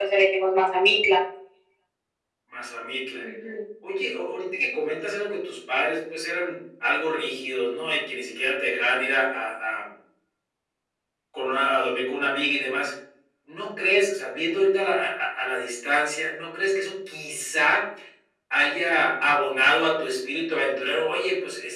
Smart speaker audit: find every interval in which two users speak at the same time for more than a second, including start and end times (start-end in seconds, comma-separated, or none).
none